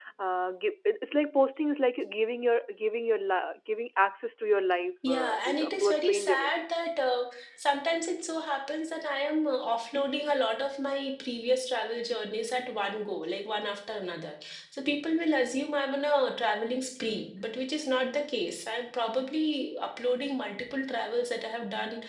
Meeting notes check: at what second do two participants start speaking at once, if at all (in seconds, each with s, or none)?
5.0 s